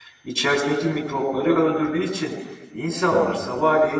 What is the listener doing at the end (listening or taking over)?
listening